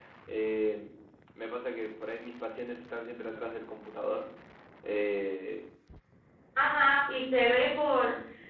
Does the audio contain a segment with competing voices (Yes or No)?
No